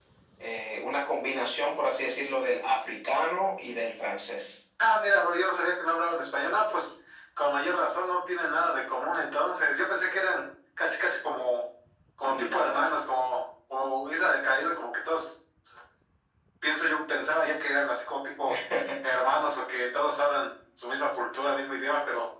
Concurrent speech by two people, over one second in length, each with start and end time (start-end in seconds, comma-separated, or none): none